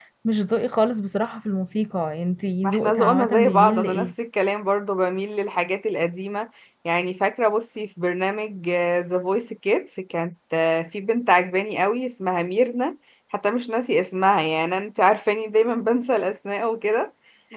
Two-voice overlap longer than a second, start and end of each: 2.6-4.1

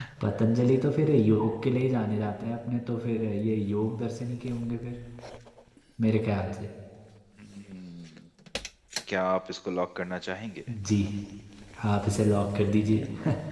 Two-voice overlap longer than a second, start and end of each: none

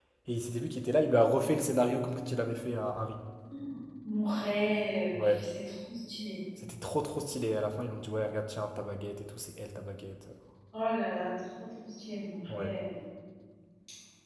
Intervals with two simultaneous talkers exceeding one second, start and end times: none

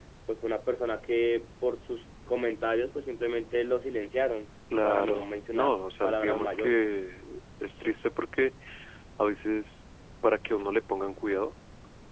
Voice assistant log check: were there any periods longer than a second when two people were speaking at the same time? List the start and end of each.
4.8-6.8

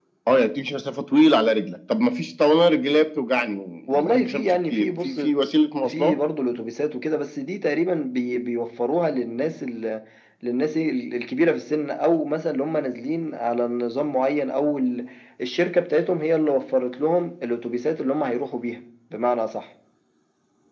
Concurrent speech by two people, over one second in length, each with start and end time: 3.9-5.2

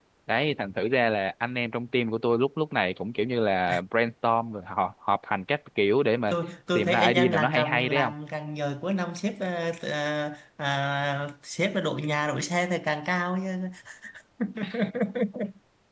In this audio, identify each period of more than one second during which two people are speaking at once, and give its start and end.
6.8-8.1

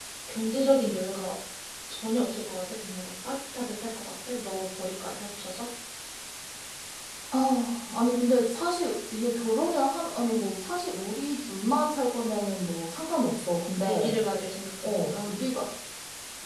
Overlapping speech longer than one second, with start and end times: none

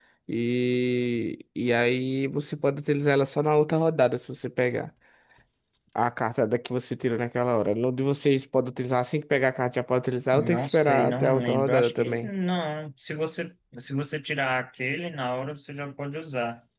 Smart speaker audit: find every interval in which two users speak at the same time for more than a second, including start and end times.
10.3-12.3

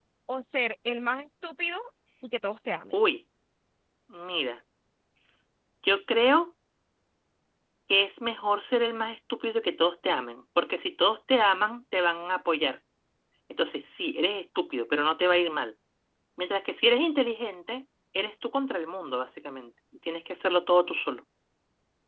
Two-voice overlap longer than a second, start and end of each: none

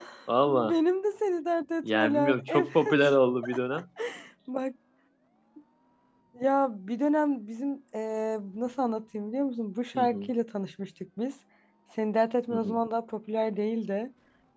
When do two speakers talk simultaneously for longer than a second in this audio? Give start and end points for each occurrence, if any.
1.8-3.1

